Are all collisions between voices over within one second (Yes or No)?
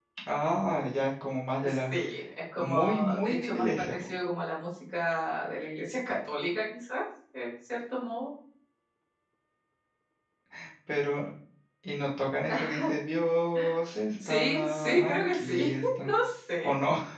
No